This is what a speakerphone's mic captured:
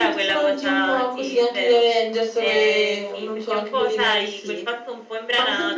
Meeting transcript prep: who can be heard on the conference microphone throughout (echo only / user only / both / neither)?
echo only